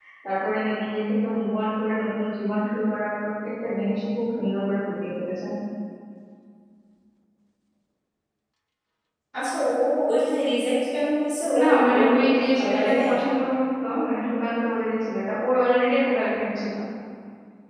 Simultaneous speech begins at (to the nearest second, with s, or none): 12 s